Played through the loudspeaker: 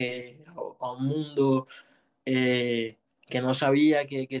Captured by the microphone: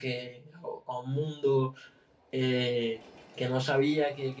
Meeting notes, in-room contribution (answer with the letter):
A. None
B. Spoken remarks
A